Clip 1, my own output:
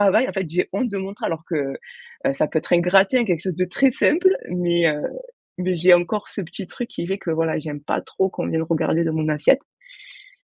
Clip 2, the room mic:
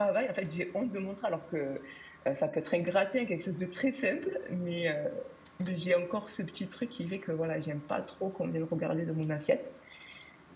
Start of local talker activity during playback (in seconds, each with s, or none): none